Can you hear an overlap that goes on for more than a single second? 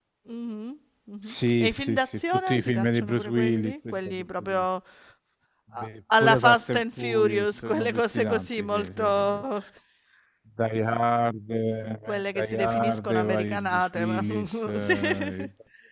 Yes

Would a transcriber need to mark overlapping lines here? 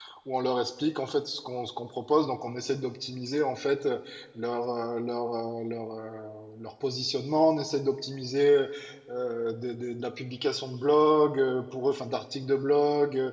No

